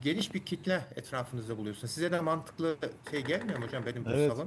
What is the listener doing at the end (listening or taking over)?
taking over